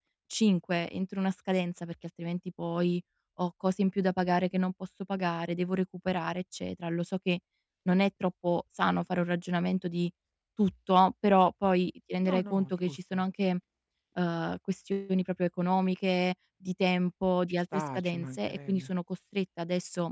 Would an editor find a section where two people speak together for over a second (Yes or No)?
Yes